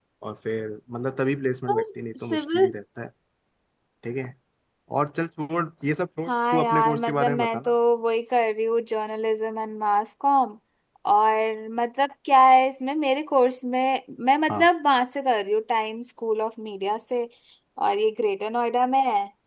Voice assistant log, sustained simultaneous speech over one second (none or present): present